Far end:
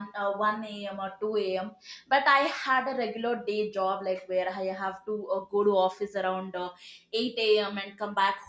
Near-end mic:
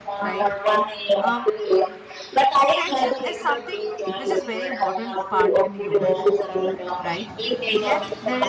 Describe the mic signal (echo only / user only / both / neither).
both